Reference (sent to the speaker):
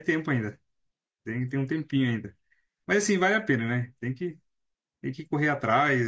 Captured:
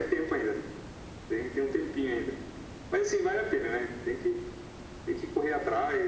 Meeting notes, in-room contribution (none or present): none